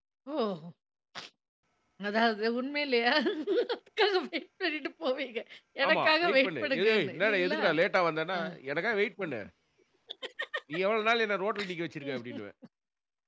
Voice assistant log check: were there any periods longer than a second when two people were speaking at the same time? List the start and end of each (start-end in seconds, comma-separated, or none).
5.9-7.6